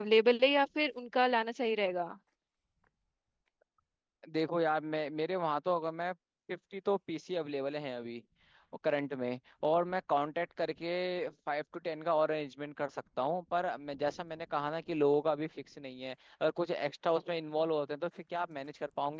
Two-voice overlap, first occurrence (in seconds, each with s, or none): none